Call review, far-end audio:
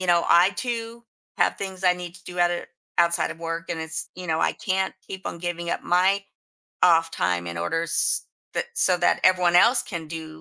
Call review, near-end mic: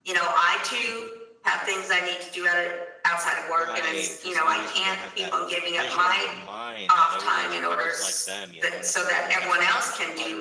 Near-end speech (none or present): present